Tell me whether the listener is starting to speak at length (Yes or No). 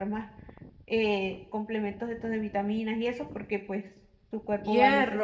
Yes